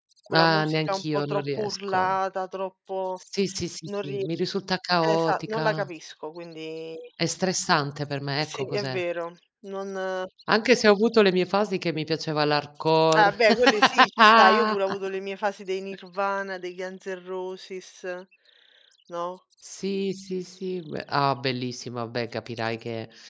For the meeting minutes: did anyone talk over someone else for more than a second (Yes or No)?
Yes